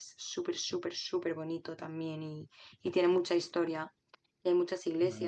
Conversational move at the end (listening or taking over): listening